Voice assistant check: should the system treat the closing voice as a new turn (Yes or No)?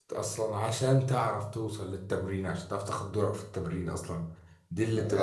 Yes